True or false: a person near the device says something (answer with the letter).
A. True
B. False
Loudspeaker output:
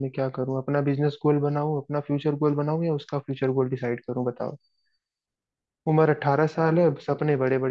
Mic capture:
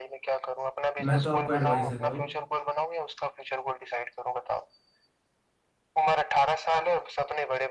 A